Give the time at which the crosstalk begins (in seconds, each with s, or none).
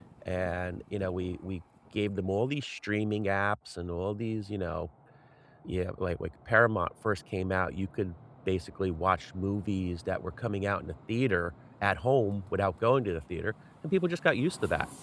none